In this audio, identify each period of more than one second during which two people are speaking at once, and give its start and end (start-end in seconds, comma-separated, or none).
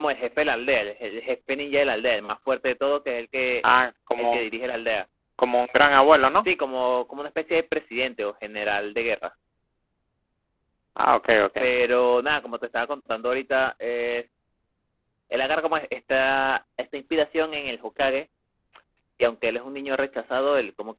none